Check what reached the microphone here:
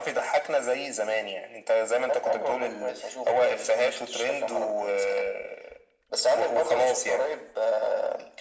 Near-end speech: none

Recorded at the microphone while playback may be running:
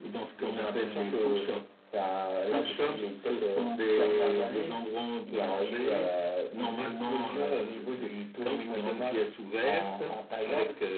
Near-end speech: none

